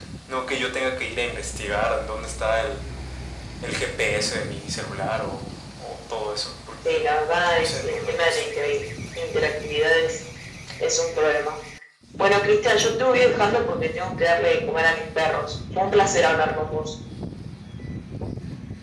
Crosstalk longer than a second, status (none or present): present